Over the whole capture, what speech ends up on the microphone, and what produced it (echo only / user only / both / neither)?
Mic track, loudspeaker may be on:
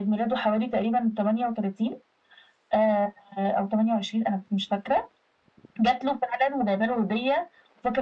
echo only